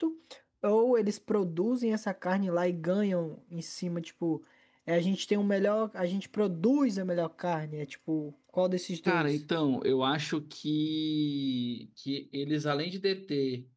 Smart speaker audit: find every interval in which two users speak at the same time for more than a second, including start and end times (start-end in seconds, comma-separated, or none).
none